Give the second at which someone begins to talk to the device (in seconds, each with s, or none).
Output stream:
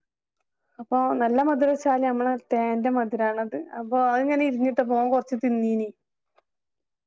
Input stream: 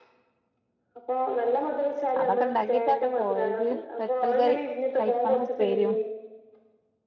2.2 s